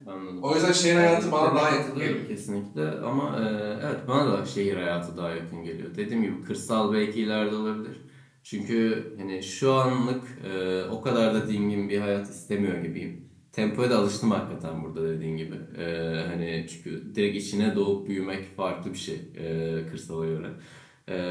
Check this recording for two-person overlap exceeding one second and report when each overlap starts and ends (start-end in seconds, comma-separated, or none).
1.0-2.2